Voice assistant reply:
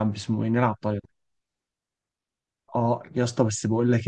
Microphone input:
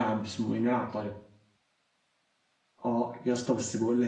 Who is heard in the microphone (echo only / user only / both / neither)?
echo only